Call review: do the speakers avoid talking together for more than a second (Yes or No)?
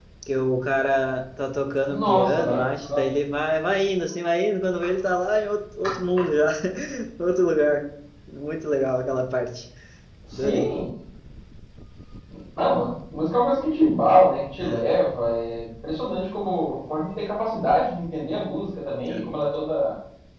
No